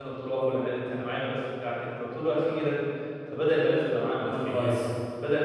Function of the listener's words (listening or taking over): listening